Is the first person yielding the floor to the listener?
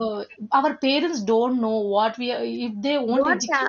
Yes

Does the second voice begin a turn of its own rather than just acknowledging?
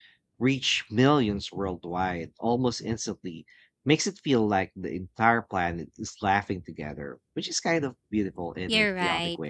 Yes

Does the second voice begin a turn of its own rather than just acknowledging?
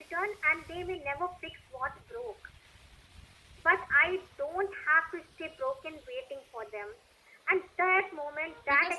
No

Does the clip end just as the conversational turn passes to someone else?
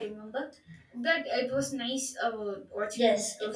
Yes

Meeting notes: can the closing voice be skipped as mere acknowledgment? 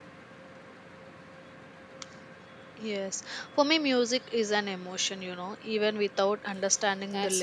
No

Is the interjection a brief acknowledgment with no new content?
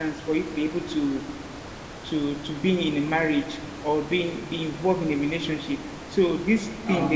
No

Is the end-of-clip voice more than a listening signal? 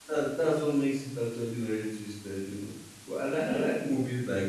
No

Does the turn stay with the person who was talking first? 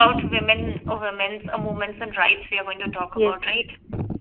No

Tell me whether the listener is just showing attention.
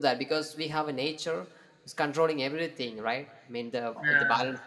Yes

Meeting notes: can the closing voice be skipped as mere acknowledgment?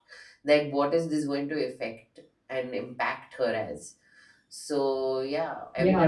No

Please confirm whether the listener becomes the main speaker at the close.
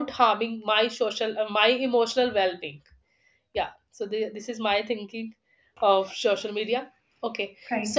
No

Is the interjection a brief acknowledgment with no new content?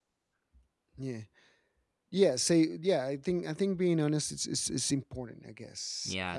Yes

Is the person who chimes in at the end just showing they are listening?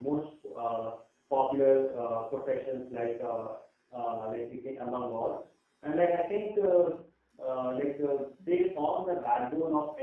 Yes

